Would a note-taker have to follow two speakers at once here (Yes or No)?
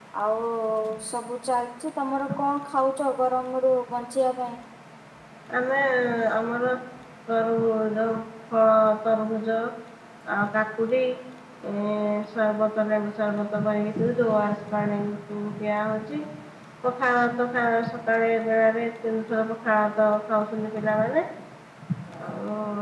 No